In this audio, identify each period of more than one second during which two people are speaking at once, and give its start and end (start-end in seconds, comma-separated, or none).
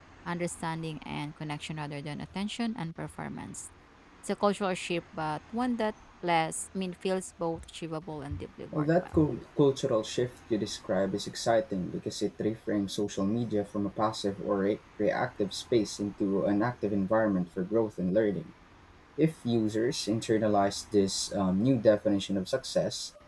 none